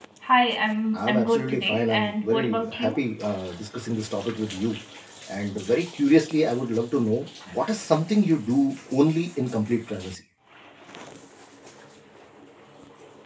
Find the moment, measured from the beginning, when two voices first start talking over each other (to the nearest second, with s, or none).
1 s